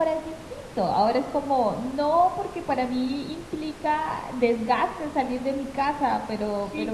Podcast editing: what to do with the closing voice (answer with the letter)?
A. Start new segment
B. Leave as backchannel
A